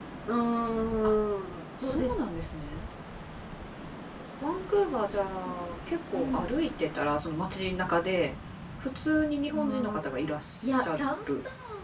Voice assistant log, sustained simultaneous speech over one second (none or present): present